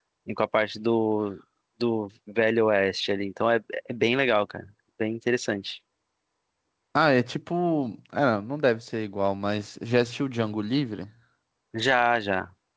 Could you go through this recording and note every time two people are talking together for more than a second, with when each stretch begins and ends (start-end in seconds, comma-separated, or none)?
none